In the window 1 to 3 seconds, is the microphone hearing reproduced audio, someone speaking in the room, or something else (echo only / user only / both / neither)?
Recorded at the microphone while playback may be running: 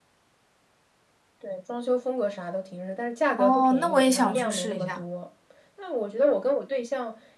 echo only